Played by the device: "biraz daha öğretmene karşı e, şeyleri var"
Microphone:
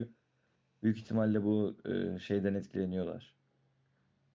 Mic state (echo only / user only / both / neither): user only